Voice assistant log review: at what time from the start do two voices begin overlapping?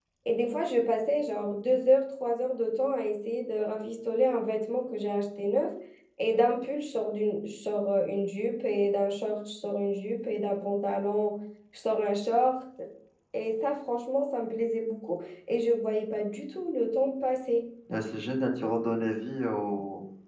none

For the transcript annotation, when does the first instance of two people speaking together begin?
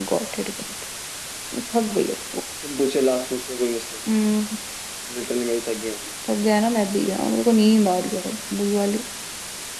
none

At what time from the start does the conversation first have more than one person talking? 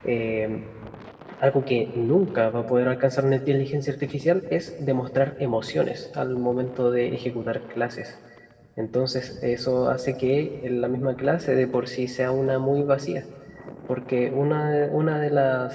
none

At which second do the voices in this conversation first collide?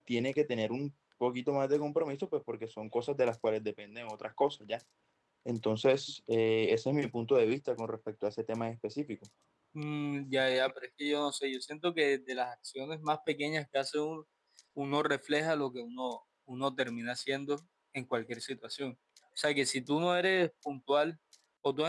none

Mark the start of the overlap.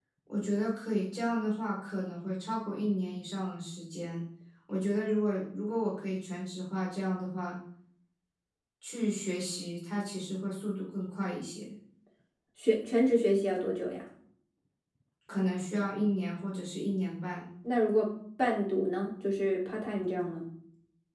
none

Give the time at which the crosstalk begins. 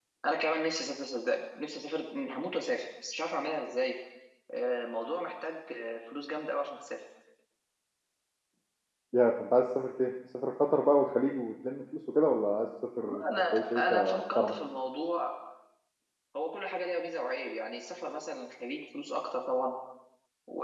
13 s

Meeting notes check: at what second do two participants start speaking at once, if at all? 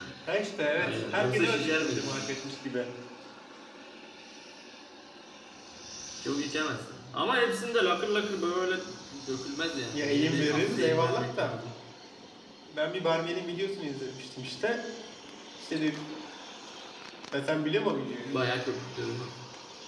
1 s

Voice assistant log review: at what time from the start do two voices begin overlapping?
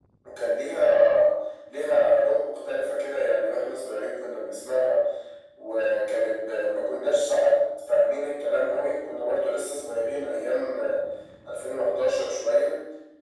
none

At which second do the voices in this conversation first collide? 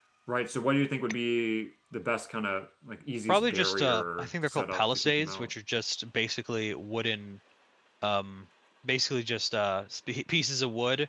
3 s

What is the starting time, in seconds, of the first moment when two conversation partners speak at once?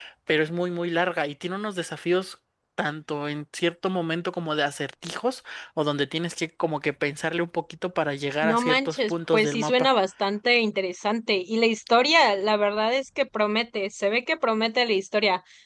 8 s

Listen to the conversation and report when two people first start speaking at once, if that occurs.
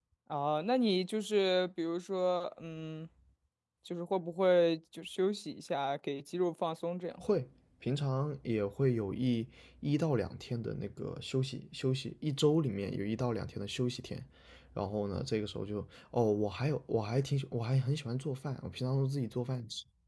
none

